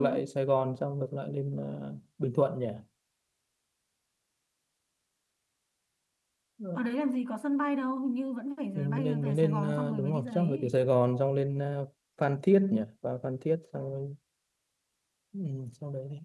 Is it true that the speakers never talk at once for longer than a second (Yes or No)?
No